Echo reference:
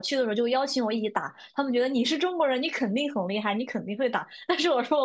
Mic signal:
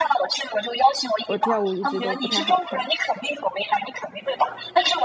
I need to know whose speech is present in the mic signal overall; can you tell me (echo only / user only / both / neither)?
both